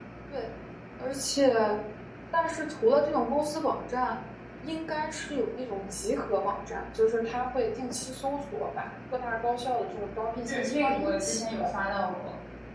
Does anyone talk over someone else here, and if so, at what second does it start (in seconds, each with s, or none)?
10.5 s